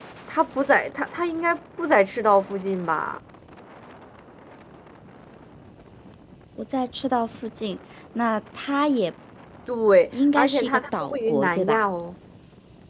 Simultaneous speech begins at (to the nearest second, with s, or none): 10 s